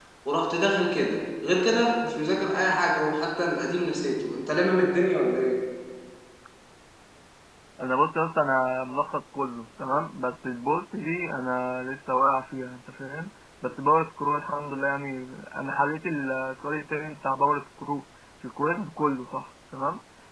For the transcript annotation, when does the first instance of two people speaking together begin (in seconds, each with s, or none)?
none